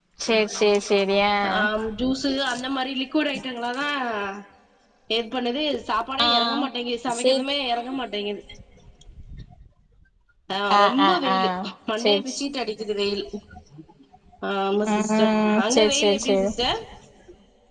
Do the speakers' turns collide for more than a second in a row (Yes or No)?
Yes